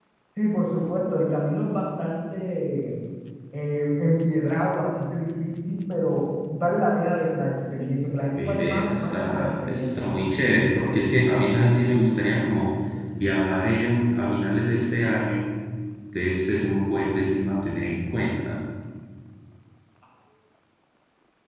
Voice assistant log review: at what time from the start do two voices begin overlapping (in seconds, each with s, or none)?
8.4 s